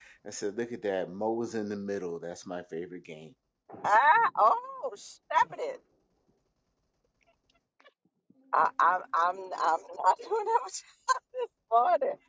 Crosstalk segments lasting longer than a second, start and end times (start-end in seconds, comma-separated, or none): none